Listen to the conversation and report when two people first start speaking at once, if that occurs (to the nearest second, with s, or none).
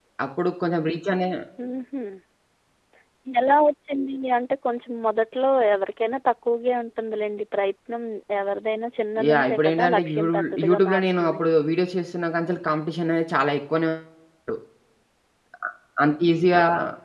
9 s